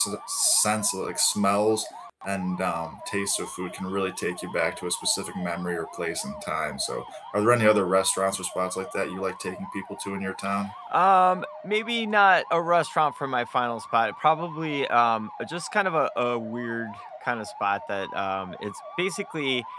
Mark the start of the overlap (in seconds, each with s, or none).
none